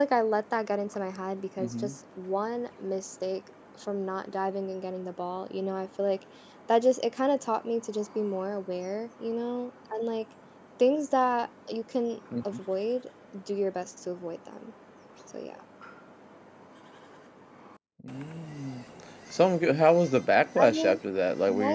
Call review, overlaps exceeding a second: none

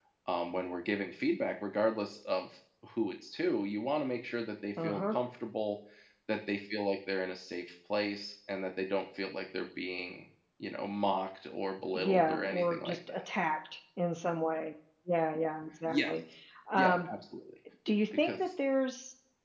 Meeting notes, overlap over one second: present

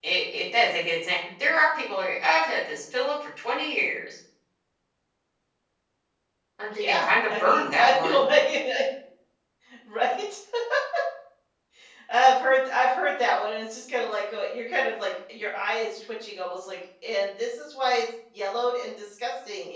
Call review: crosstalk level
present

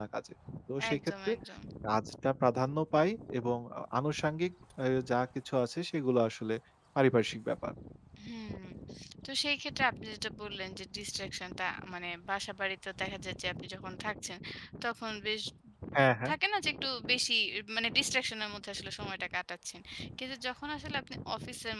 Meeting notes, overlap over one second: none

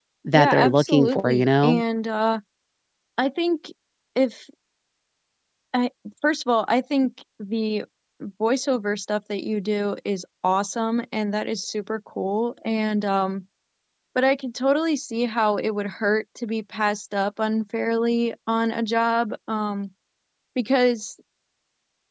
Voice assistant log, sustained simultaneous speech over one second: present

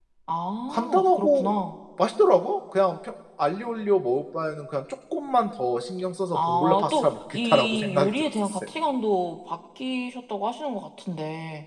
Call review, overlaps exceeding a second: present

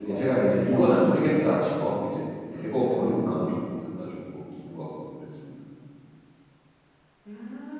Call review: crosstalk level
present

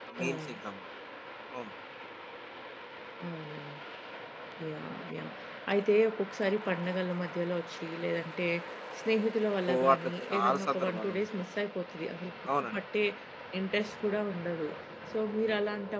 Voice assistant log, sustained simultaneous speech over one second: present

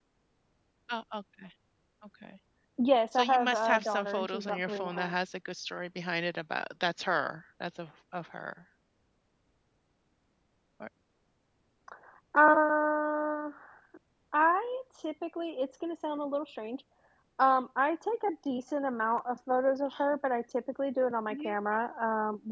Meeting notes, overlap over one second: present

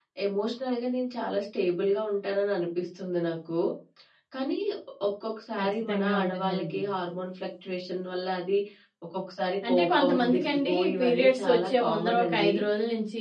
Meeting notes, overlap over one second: present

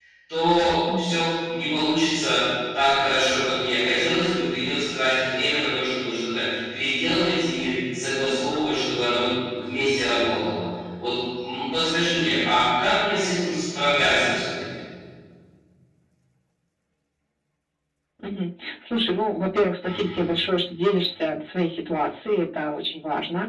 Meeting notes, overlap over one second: none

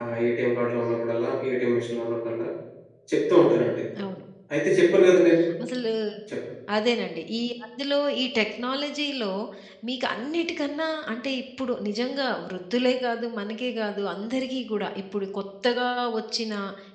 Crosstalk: none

